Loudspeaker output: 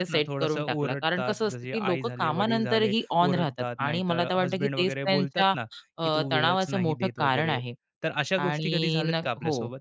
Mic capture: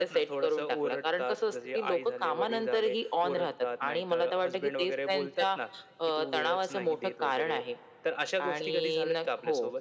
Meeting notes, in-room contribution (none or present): none